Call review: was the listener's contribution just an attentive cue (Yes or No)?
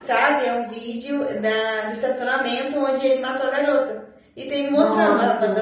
Yes